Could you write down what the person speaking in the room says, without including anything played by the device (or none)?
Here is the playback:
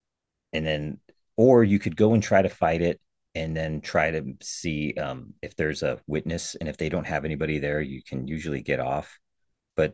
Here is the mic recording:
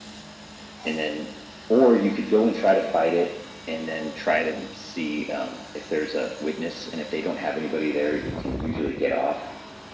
none